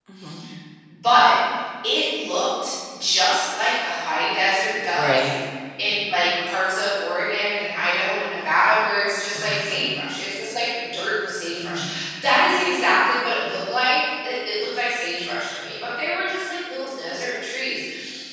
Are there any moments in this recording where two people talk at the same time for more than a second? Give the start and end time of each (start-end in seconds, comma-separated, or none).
none